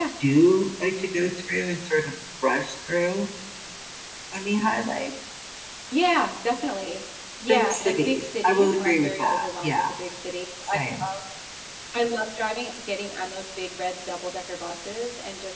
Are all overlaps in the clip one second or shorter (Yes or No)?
No